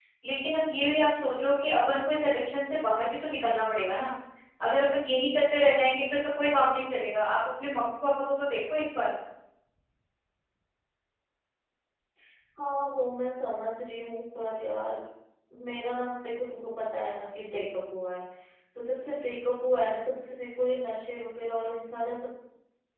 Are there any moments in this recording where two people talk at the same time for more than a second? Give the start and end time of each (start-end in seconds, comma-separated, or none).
none